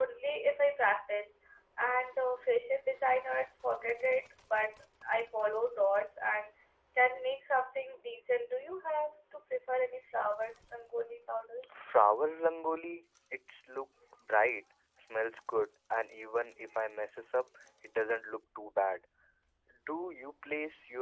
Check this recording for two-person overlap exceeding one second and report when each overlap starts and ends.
none

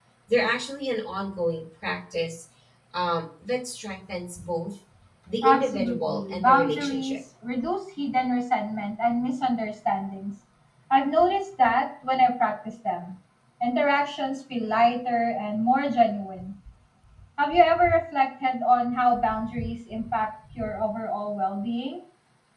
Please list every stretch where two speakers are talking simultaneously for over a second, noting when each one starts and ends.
5.4-7.2

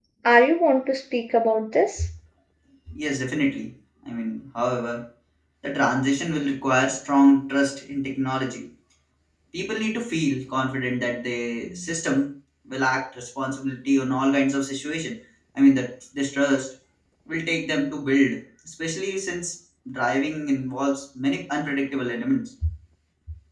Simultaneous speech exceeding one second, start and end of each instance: none

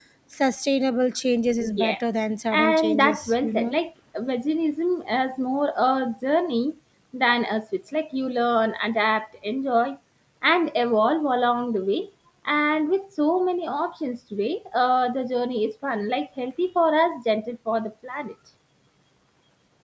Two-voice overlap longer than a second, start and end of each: 2.5-3.7

